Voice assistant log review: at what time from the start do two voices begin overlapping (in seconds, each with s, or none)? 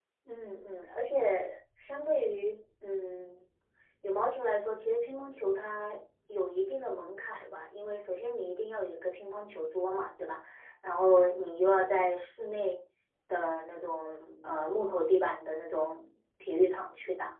none